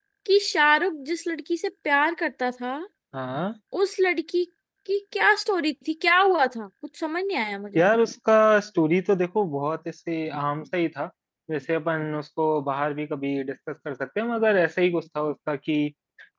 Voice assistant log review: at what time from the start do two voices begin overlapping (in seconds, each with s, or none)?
none